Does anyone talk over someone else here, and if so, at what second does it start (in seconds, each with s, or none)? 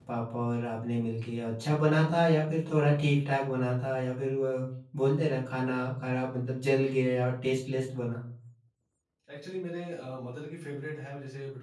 none